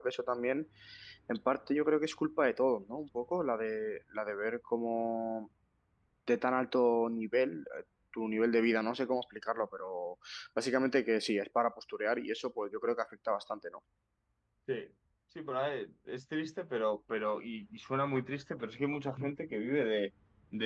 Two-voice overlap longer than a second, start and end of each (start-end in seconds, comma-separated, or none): none